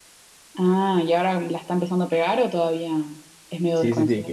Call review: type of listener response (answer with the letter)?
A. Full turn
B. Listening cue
A